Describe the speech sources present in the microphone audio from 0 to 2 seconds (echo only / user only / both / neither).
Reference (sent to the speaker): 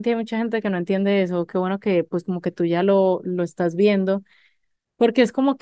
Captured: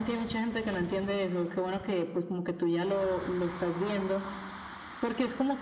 echo only